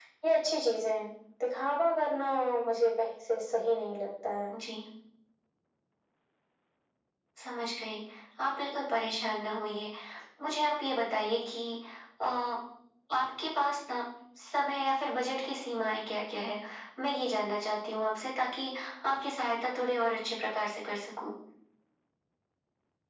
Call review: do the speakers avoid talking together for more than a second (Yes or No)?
Yes